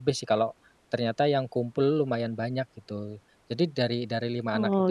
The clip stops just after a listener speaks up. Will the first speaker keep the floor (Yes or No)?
Yes